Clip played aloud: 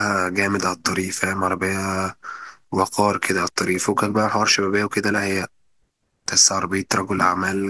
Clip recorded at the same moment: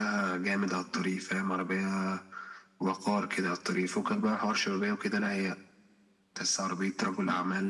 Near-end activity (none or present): none